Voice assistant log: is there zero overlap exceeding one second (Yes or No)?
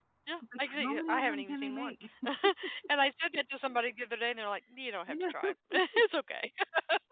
No